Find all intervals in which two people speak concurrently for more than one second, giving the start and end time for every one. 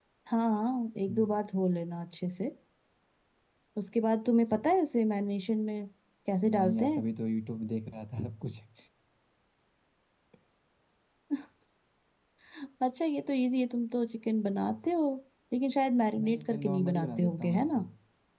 16.2-17.8

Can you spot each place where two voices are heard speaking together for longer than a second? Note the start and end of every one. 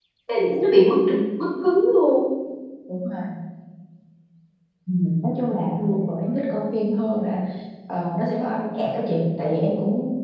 none

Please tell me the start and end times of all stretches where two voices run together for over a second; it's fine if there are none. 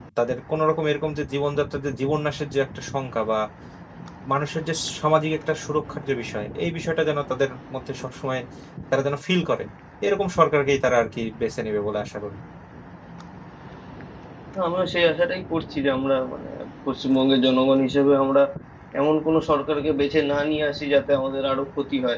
none

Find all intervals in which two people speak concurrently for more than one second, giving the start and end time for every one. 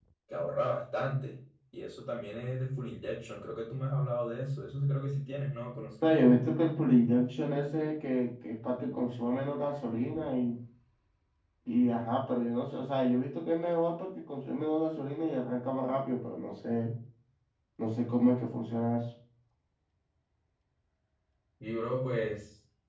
none

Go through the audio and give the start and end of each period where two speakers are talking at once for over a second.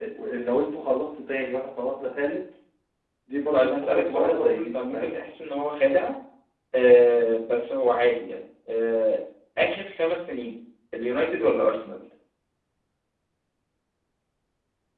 3.5-5.1

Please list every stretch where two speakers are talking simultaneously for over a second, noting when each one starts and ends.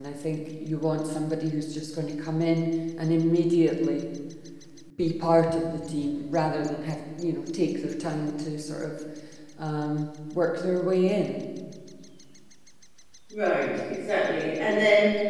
none

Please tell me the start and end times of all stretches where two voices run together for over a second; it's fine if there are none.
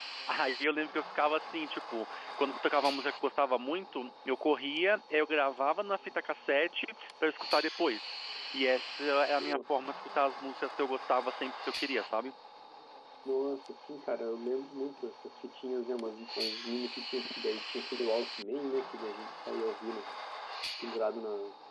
none

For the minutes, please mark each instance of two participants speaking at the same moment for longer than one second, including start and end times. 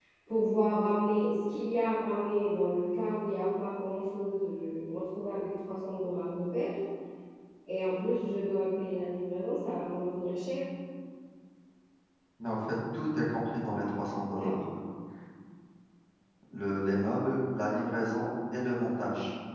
none

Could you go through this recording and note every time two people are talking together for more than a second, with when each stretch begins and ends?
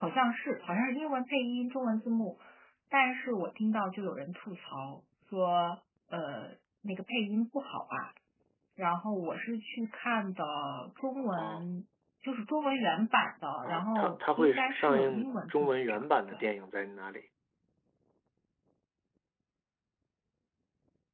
13.7-16.4

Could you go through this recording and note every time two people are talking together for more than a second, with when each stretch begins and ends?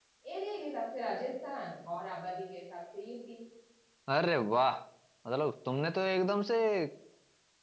none

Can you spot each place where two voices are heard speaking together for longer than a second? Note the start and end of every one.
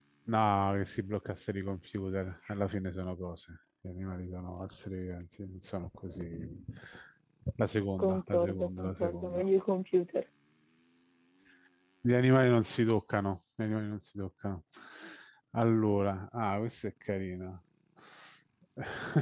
8.0-9.4

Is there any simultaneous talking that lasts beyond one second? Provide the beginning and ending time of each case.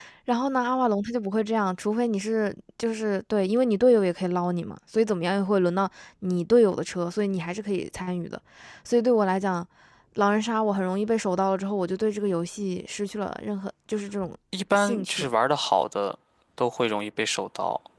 none

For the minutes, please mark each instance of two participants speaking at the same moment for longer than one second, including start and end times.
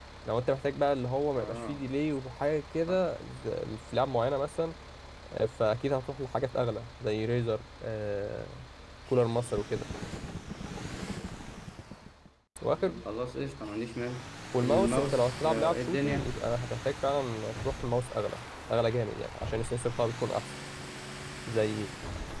14.6-16.3

